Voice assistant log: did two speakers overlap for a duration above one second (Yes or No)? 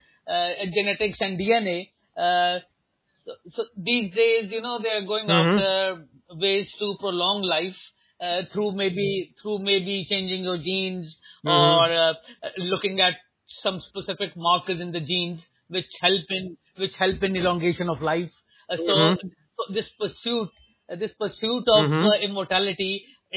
No